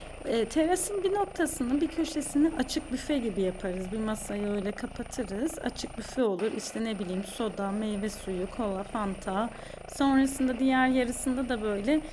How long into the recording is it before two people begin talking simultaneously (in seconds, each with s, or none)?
none